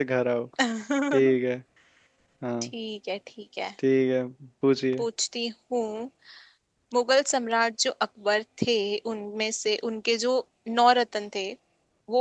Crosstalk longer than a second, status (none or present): none